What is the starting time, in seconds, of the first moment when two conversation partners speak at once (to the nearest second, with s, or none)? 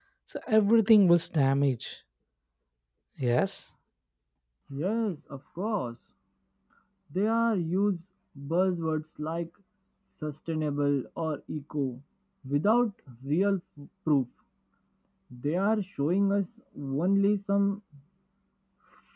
none